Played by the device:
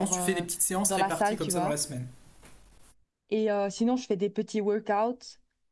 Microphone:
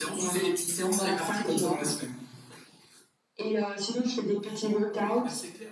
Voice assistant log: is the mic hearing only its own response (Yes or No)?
No